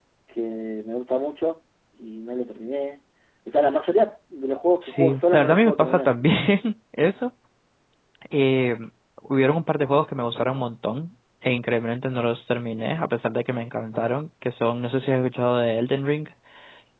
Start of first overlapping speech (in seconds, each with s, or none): 4.8 s